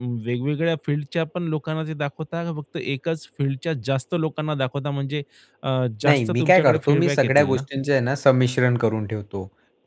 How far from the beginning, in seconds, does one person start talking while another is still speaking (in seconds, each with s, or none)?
6.0 s